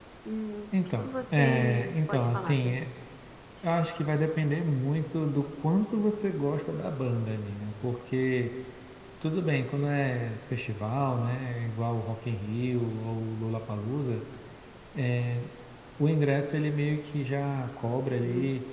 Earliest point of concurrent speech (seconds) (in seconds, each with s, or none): 1.0 s